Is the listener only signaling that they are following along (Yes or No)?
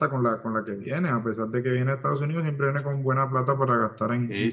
No